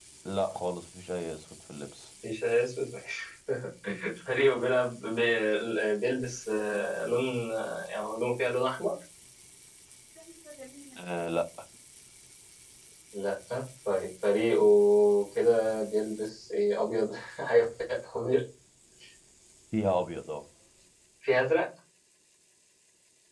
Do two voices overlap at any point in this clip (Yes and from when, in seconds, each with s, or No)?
No